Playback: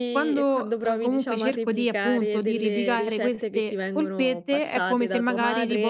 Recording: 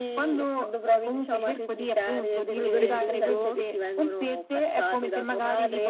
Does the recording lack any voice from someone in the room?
No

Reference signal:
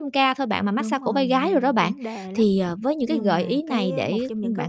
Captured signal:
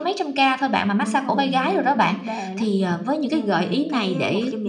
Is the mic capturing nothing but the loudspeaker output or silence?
Yes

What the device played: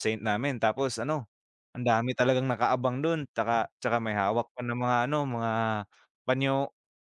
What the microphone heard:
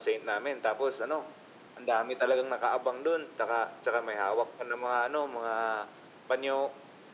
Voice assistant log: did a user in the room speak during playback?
No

